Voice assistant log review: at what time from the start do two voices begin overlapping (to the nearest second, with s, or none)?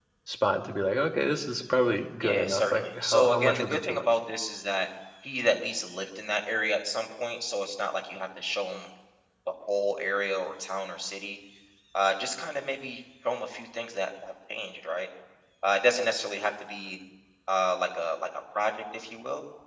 2 s